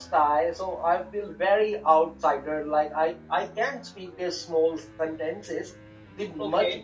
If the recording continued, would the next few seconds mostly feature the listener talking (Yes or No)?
No